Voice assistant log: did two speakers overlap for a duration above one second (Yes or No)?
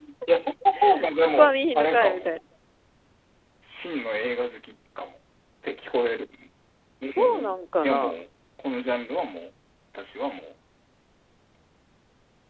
Yes